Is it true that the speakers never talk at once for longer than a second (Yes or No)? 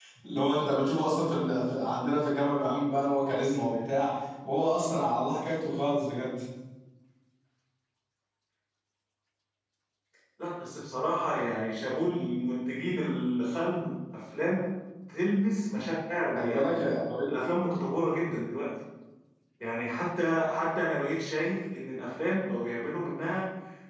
Yes